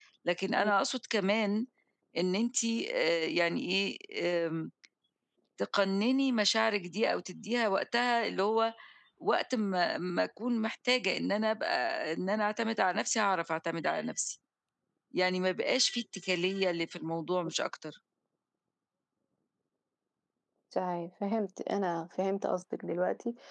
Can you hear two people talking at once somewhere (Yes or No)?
No